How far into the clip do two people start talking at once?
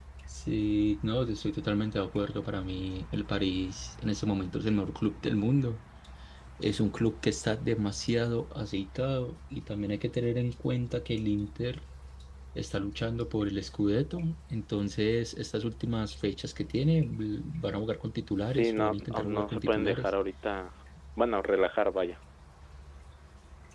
18.5 s

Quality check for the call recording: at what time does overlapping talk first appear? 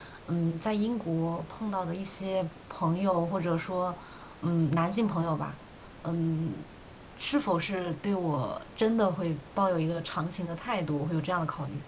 none

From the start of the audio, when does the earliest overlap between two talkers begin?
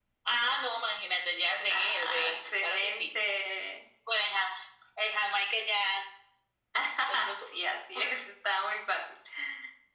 1.7 s

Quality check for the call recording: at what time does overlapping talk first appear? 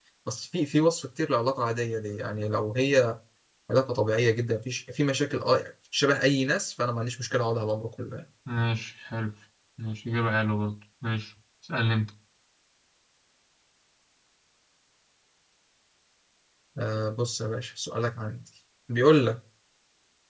none

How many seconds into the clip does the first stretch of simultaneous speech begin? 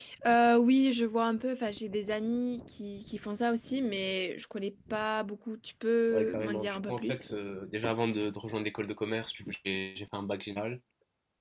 6.1 s

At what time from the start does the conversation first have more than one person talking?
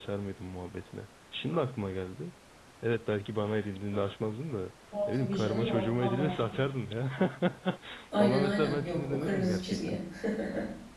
5.1 s

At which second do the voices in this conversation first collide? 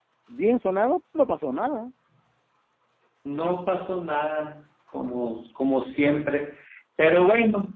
none

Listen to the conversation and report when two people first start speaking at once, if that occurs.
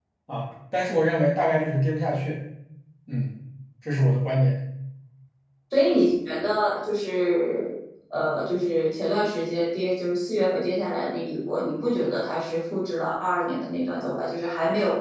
none

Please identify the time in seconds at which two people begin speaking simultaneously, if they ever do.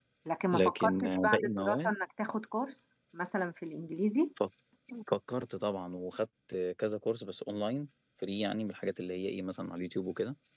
0.5 s

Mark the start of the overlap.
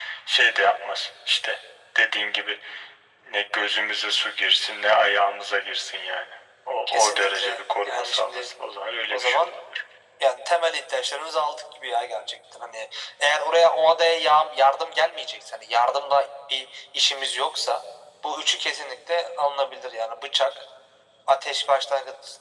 6.9 s

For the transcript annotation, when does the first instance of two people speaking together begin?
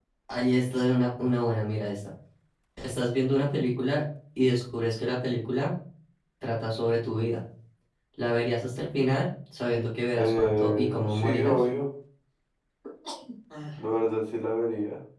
10.2 s

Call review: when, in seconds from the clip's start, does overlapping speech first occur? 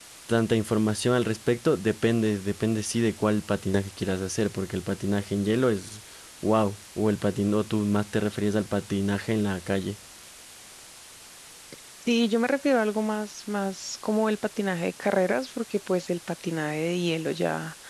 none

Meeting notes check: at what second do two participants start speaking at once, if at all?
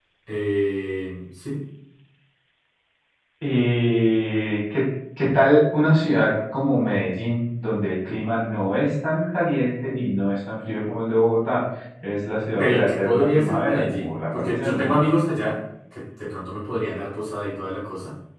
12.6 s

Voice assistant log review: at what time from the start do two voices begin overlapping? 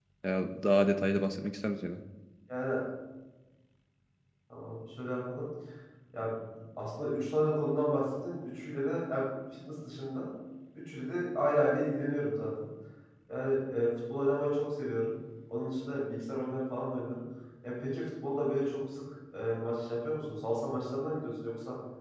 none

